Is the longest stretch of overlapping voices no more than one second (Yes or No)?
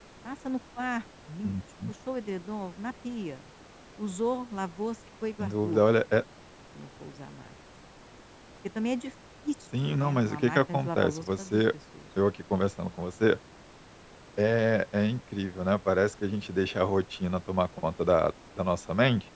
No